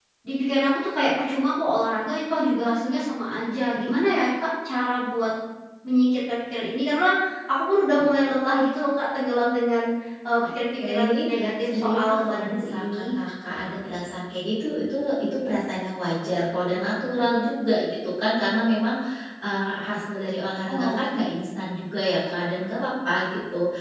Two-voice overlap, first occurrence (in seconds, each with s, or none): 10.9 s